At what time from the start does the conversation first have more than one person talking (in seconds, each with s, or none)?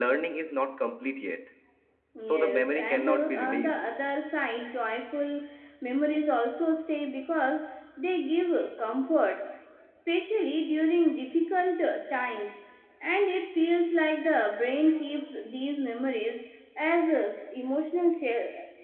2.3 s